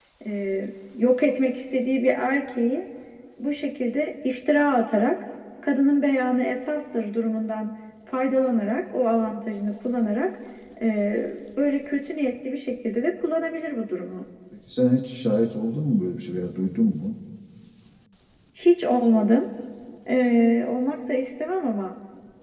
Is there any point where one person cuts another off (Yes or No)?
No